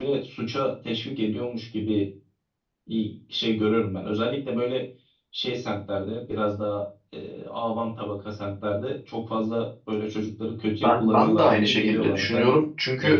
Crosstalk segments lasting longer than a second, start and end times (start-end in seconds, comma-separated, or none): 10.8-12.5